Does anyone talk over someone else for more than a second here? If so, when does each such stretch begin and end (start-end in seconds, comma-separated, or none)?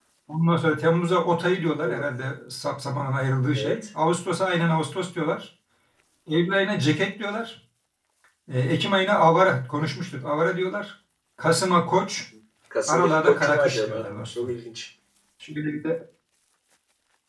12.9-14.5